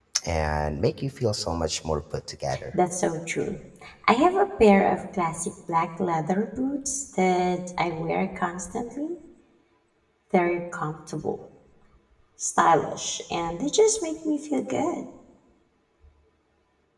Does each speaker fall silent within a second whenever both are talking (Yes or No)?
Yes